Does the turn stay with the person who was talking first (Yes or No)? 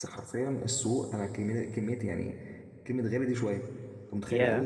Yes